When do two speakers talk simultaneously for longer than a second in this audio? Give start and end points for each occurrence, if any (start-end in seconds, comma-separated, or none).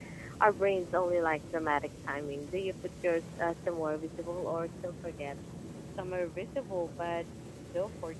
none